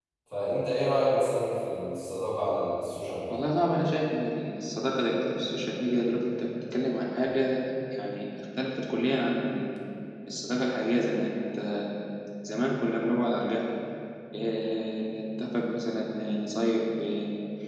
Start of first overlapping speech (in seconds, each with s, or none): none